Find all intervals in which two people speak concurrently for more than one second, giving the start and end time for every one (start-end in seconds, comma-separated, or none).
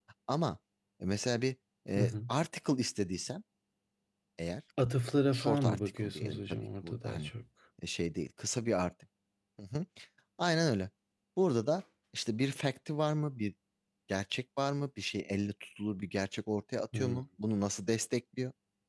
5.3-7.3